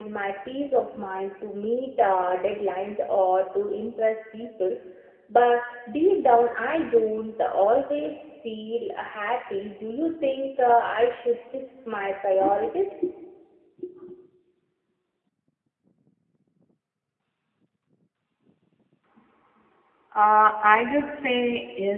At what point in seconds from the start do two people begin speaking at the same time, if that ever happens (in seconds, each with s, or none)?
none